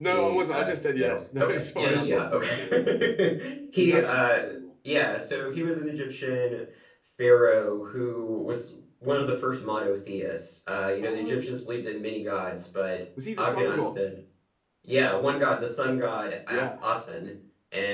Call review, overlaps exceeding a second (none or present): present